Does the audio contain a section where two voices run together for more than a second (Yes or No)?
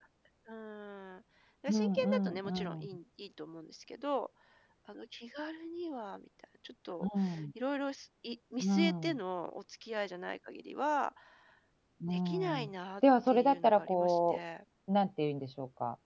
Yes